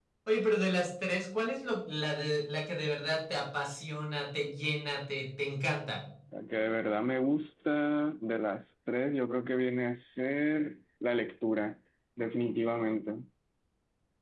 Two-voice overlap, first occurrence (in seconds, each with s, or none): none